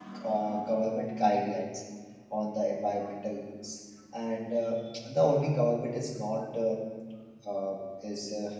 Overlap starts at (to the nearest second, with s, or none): none